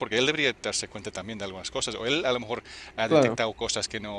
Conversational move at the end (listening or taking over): listening